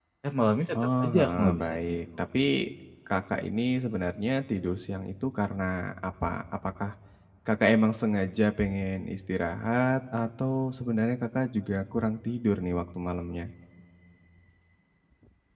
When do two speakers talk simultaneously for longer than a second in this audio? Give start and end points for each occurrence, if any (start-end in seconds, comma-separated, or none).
0.8-2.3